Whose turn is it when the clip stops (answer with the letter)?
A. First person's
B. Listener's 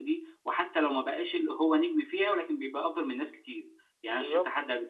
A